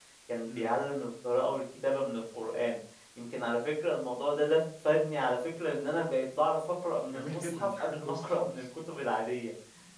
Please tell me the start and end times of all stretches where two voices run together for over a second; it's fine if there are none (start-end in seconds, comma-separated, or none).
7.1-8.7